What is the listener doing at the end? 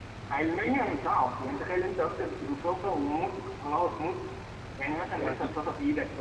listening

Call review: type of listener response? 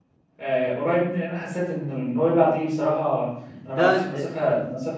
listening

